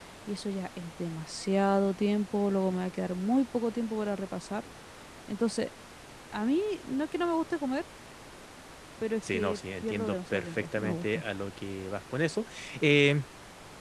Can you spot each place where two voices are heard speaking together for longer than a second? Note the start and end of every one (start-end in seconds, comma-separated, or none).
9.3-11.2